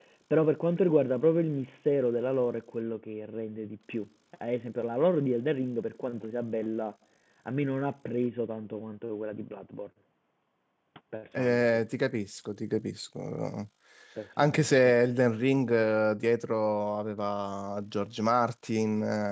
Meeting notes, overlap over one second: none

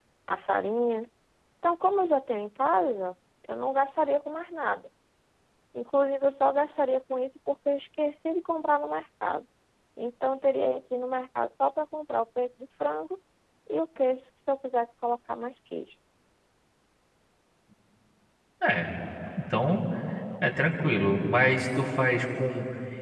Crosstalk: none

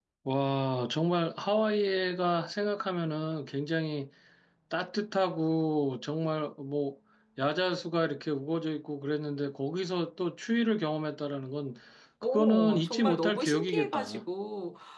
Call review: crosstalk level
present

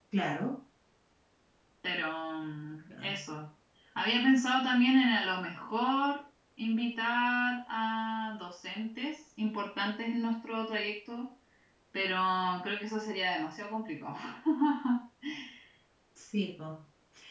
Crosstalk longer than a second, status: none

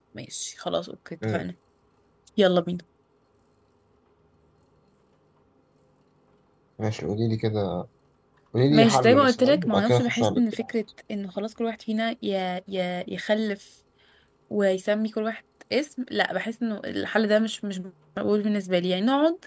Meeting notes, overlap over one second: present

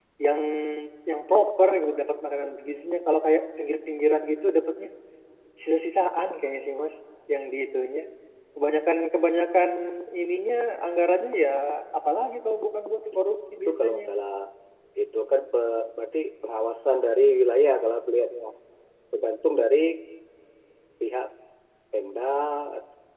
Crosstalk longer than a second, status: none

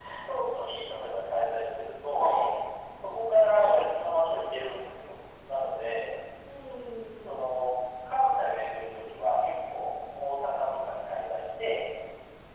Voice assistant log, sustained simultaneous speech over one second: none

